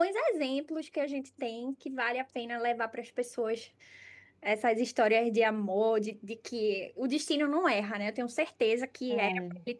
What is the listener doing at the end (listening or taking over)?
listening